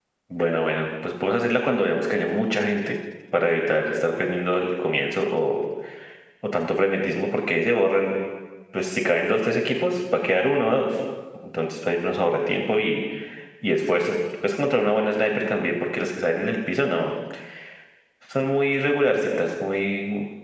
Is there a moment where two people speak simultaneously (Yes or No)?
No